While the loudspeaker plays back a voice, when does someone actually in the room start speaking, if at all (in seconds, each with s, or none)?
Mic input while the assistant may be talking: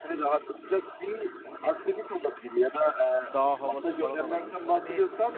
3.3 s